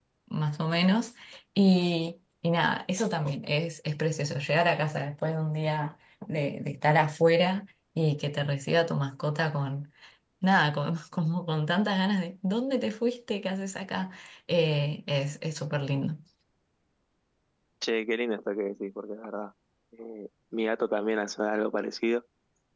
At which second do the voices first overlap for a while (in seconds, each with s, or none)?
none